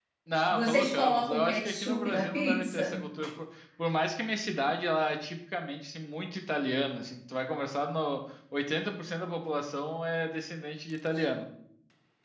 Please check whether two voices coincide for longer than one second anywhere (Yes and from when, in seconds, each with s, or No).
Yes, from 0.5 s